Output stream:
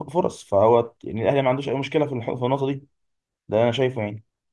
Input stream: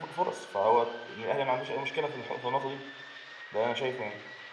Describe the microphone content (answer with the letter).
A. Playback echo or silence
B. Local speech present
A